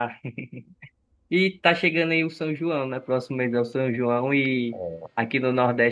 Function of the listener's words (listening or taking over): listening